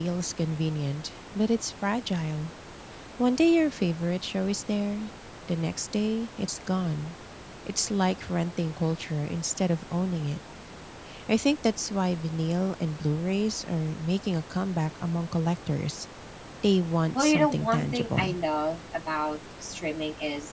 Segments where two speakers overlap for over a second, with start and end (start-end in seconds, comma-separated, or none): 17.1-18.4